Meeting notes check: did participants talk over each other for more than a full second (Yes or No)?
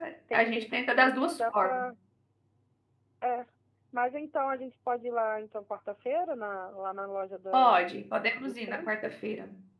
Yes